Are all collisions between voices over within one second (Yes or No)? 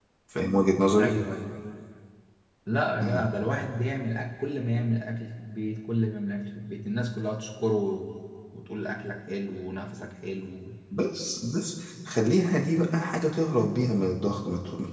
Yes